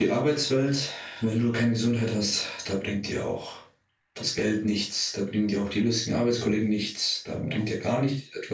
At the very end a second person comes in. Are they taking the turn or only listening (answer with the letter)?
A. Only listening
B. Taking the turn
A